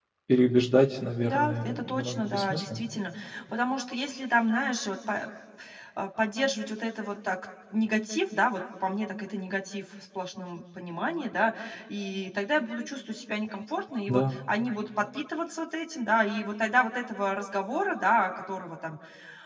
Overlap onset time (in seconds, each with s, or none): 1.2 s